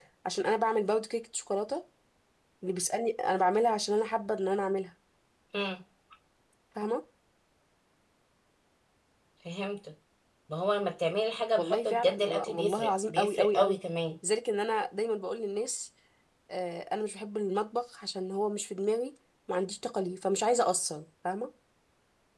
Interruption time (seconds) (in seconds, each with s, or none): 11.6 s